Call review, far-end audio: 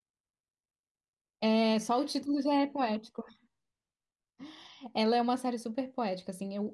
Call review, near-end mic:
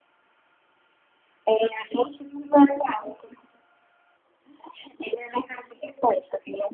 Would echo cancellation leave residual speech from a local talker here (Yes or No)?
No